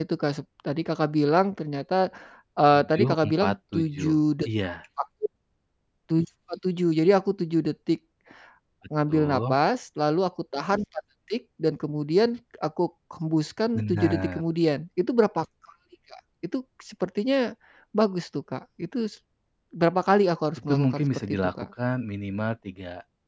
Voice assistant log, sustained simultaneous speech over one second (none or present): present